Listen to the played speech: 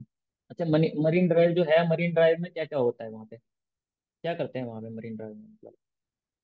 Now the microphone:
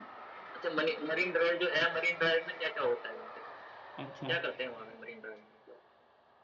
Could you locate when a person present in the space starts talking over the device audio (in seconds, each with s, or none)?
4.0 s